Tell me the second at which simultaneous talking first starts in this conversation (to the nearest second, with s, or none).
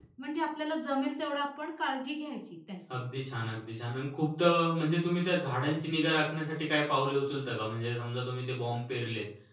none